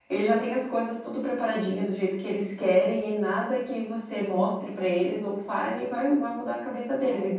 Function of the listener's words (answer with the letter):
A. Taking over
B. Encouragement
B